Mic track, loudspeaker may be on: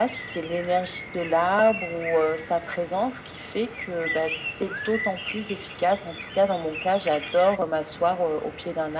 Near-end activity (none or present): none